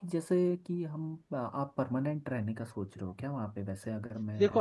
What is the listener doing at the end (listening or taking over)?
taking over